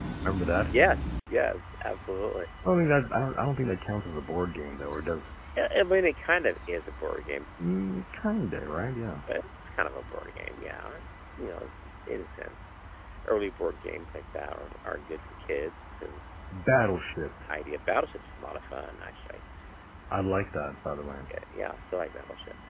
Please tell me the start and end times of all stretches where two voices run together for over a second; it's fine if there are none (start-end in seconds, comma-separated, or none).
none